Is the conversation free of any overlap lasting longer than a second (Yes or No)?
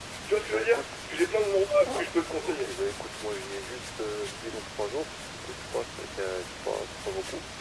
Yes